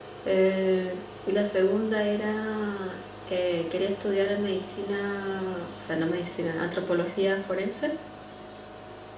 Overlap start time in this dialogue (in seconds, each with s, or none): none